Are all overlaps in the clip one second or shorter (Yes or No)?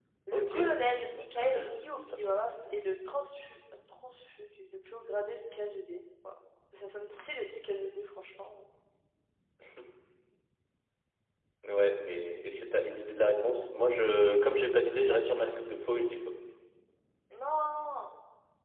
Yes